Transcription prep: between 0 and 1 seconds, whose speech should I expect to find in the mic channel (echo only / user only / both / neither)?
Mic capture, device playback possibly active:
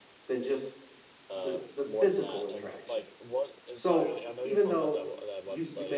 echo only